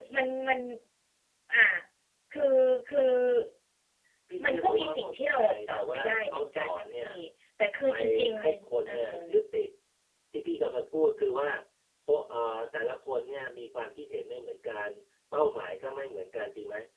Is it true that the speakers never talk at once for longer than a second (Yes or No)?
No